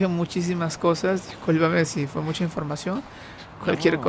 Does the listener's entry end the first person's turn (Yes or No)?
No